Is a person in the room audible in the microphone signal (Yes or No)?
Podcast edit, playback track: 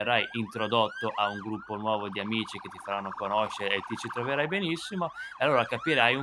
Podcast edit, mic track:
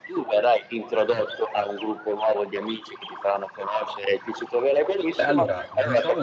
Yes